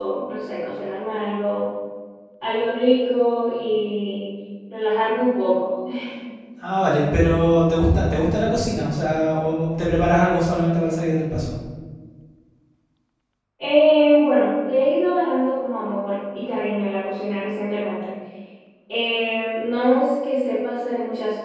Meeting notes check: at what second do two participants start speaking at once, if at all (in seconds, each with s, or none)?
none